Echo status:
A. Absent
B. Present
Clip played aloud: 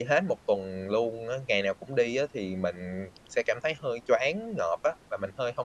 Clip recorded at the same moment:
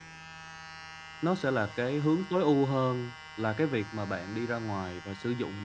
A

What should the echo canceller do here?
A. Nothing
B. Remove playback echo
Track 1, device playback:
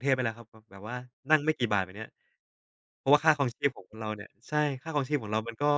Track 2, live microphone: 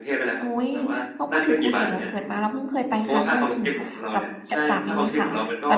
B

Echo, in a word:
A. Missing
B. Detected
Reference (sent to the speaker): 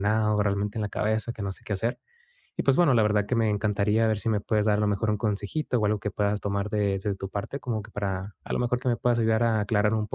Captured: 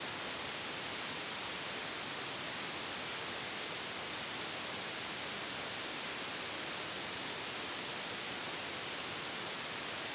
A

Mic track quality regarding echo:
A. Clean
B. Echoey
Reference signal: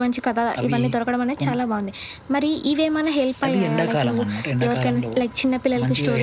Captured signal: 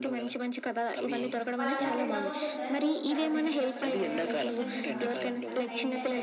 B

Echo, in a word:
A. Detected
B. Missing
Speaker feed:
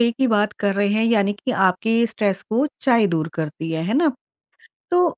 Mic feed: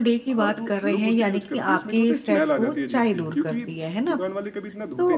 A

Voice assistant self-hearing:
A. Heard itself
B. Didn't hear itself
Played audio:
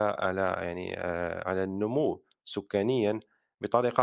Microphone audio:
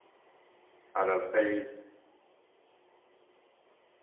B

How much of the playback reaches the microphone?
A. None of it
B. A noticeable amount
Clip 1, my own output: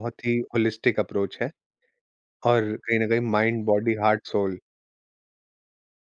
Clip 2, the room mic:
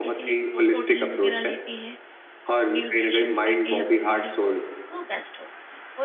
B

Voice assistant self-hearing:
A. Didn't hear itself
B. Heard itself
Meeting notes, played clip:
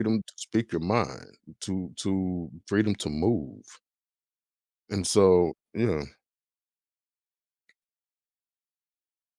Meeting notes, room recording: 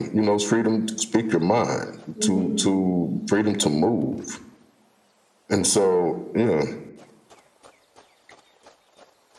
B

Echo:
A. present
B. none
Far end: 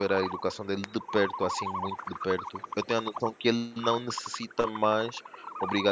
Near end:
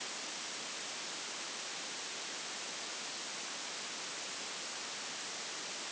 B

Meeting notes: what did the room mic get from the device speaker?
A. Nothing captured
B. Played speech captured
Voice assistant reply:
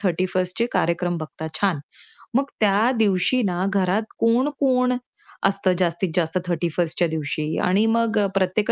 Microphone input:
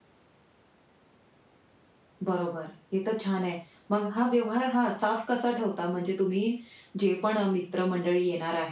A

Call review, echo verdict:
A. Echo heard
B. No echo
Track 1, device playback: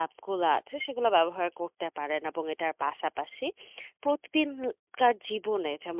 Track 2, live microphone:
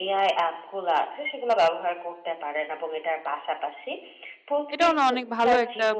A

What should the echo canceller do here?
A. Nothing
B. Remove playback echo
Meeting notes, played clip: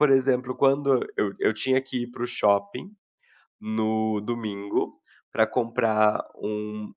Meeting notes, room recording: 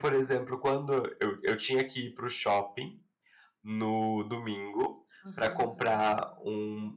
B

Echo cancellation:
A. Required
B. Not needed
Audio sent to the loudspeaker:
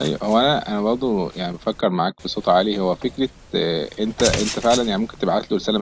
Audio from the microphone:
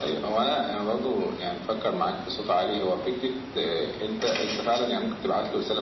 A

